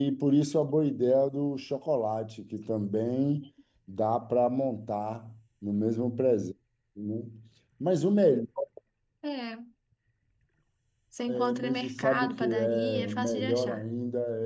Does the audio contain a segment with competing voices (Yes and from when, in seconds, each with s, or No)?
Yes, from 11.3 s